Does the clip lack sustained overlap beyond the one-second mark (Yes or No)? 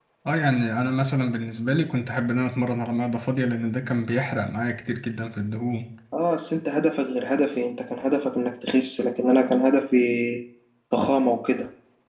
Yes